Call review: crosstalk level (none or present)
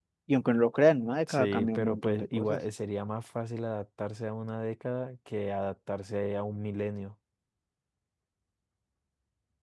present